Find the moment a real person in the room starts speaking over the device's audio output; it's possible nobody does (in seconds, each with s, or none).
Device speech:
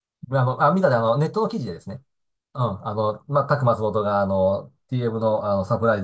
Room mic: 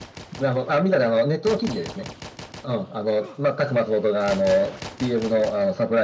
none